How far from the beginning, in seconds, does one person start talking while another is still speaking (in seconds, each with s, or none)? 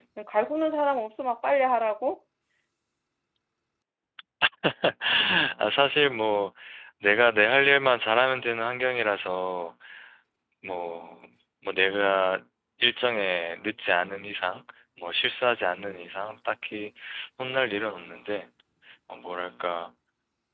none